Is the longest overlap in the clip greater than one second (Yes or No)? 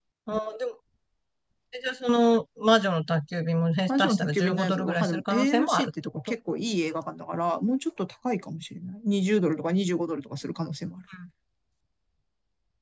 Yes